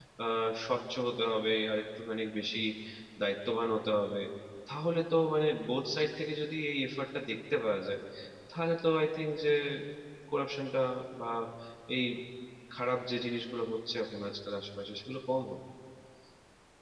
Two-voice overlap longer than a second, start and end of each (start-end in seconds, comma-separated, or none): none